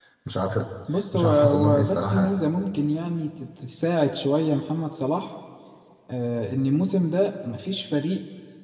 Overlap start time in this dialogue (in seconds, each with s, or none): 1.1 s